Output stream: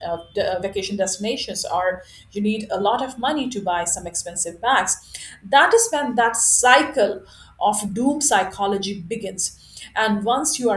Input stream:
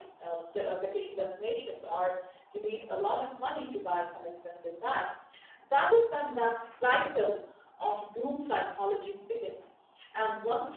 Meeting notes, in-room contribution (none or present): none